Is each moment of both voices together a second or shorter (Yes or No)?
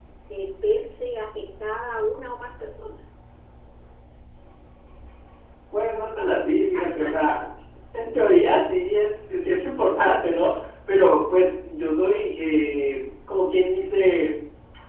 Yes